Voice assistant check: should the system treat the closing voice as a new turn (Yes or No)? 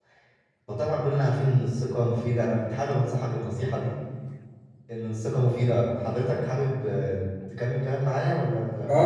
Yes